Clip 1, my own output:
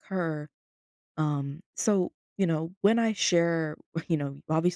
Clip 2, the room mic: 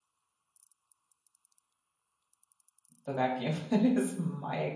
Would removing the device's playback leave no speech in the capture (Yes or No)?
No